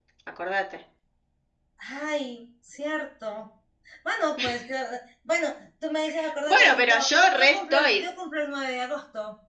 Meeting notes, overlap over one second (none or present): present